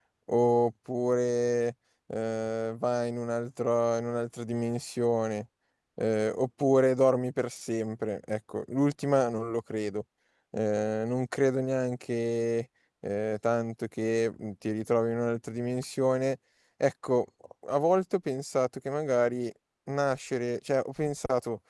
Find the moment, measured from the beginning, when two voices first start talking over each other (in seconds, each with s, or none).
none